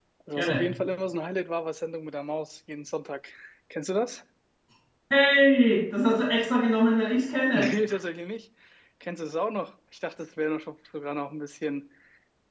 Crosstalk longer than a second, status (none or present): none